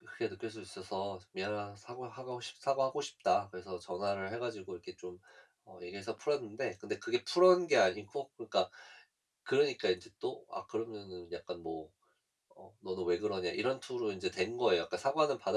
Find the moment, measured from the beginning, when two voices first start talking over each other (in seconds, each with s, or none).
none